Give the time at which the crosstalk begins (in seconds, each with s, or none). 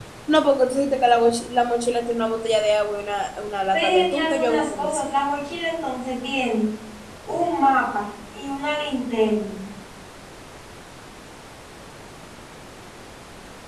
3.7 s